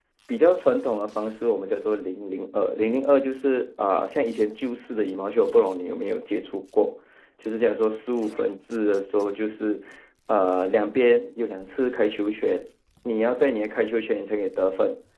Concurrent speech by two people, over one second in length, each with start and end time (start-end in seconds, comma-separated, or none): none